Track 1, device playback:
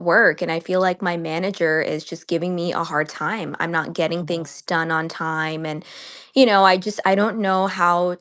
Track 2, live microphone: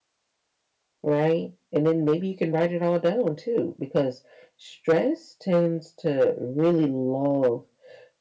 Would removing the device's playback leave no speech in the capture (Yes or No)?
No